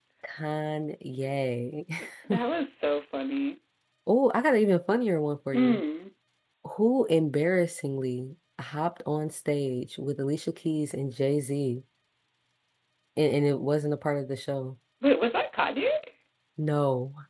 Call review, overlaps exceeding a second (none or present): none